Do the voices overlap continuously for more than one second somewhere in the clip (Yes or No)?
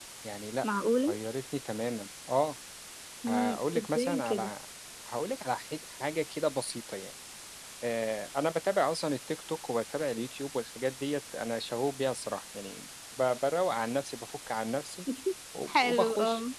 Yes